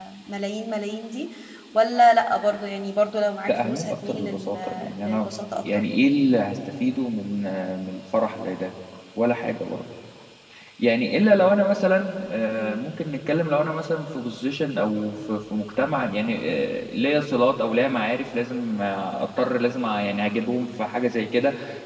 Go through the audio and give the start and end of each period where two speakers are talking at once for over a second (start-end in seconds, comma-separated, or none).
3.5-5.3